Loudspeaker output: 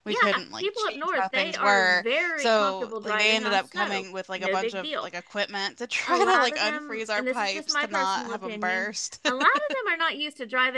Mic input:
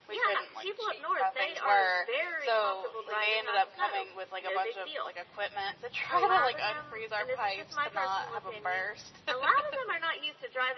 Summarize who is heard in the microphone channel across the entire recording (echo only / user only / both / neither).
echo only